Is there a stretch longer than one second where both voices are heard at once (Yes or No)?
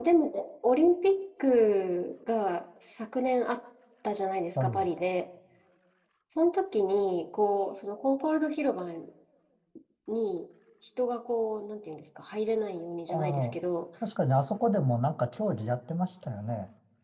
No